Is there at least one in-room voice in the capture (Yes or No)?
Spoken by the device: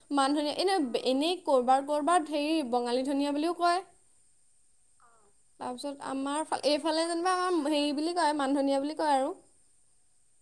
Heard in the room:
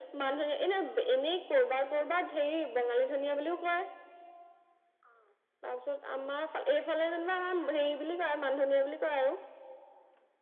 No